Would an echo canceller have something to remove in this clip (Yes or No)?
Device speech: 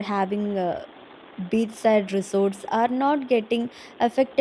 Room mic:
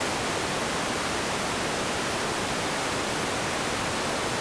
No